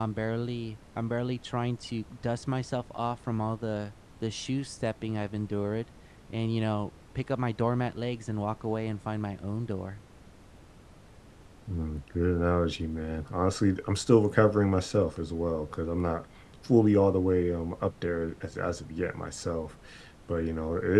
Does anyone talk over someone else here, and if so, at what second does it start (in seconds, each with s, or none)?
none